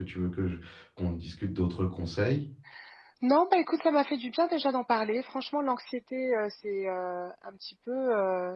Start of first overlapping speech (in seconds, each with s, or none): none